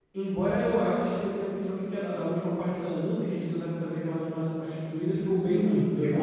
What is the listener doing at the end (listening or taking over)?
taking over